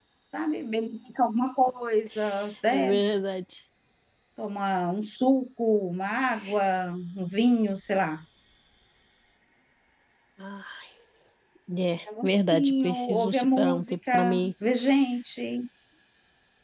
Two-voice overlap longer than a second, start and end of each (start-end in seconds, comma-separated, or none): 12.5-14.5